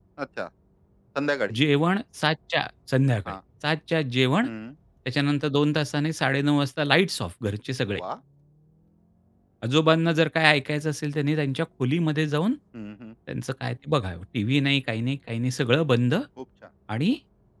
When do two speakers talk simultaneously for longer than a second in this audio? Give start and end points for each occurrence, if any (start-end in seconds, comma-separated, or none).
none